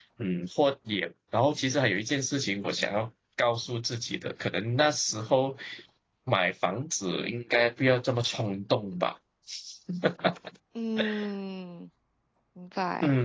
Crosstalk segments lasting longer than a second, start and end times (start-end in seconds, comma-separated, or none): none